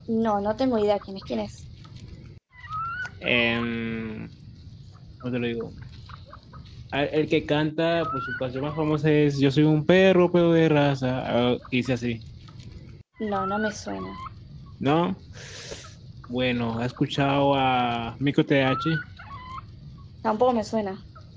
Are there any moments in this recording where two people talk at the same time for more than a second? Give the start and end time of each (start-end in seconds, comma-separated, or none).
none